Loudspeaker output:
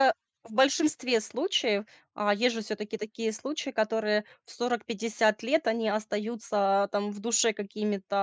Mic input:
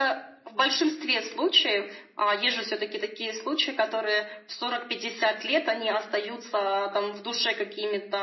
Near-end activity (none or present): none